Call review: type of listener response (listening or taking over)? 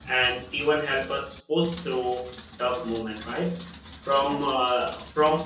listening